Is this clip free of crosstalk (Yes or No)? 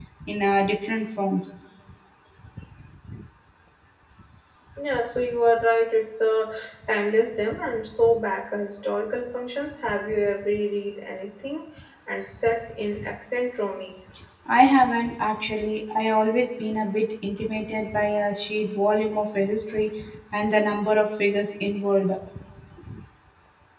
Yes